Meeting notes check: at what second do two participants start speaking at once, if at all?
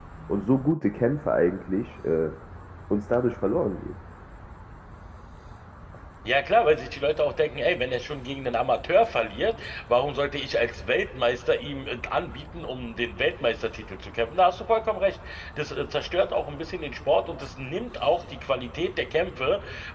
none

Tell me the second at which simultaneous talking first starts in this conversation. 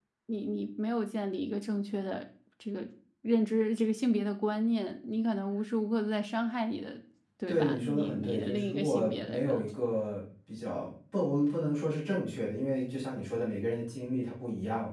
7.5 s

